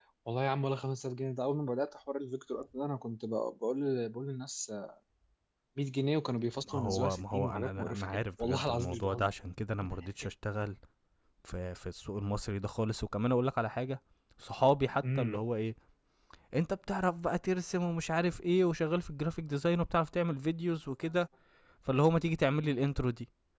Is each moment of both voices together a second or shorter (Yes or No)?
No